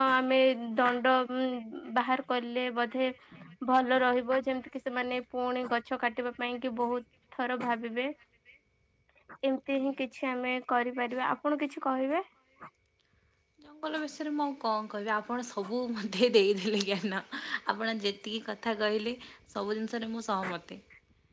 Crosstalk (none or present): none